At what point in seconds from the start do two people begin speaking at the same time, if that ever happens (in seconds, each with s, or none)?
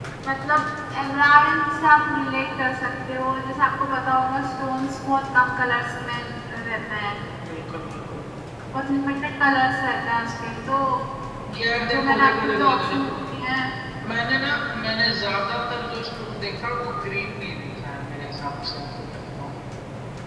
11.9 s